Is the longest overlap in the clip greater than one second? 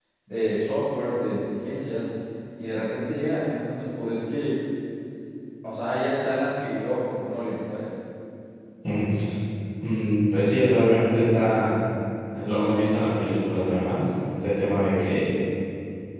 No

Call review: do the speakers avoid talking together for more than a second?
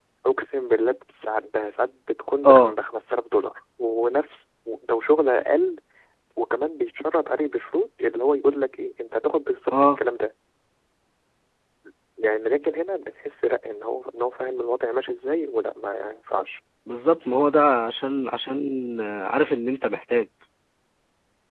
Yes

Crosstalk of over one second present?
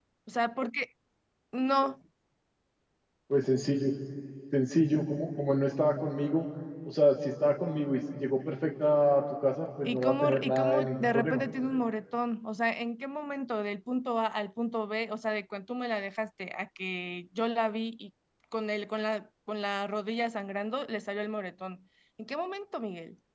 Yes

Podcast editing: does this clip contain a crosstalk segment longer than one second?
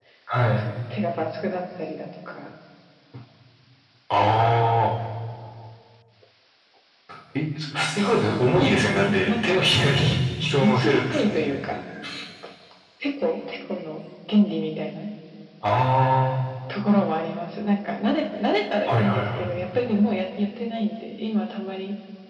Yes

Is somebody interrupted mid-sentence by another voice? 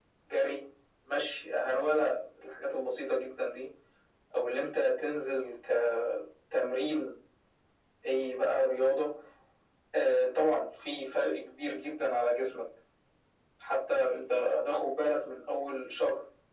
No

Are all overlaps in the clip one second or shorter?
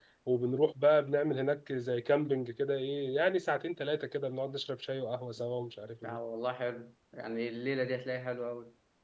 Yes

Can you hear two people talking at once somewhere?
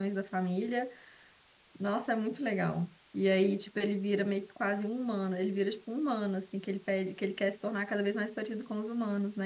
No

